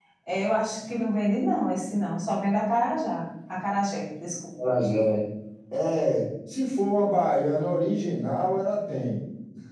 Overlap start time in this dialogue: none

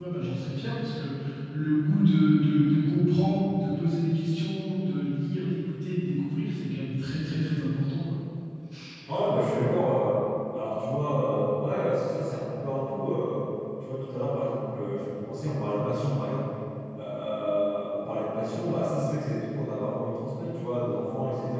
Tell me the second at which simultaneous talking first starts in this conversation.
none

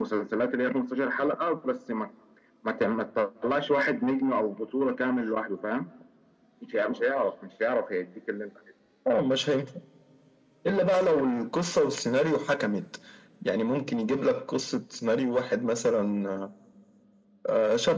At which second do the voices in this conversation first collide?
none

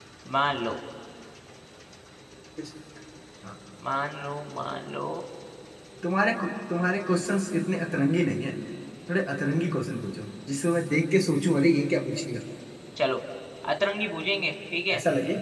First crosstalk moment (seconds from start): none

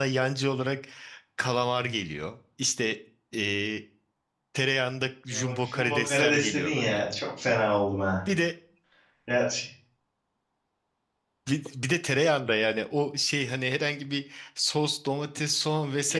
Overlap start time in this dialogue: 5.3 s

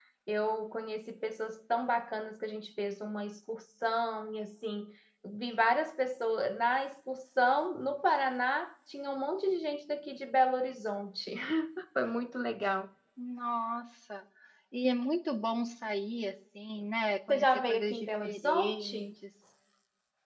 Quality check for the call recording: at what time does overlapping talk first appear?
17.3 s

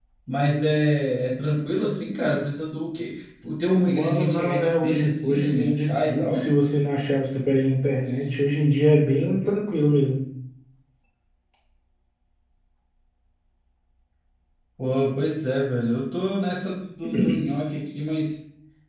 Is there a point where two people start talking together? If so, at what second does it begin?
3.9 s

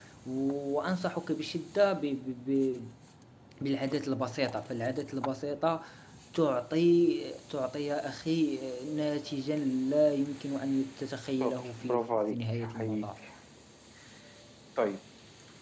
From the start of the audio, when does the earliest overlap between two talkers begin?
11.4 s

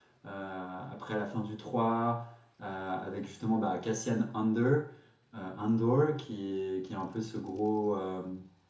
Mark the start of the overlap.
none

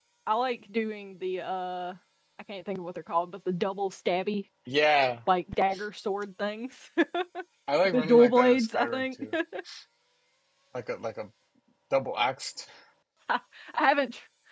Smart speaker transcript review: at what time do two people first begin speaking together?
7.9 s

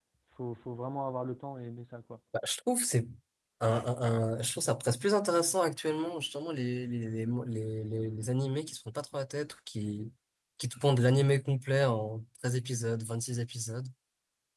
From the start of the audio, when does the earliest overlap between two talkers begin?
none

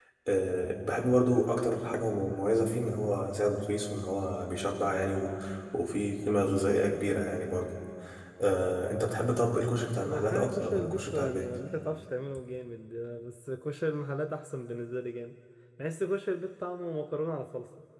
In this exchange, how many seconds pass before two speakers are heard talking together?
10.1 s

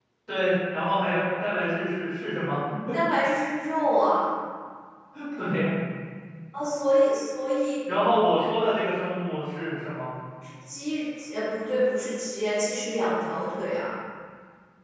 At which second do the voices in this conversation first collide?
none

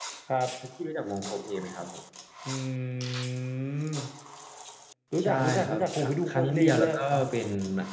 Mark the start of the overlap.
5.2 s

